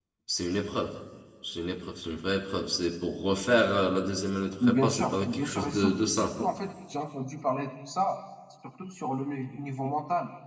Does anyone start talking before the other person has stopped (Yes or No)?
Yes